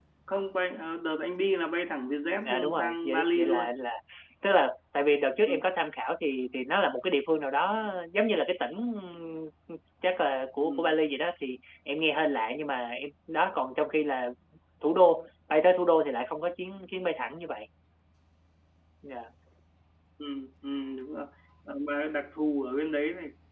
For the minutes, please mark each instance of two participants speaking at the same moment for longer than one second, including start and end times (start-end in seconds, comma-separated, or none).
2.5-3.7